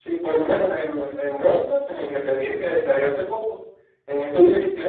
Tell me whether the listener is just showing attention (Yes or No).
Yes